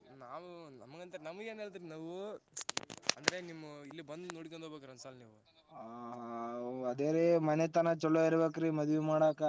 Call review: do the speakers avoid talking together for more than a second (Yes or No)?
Yes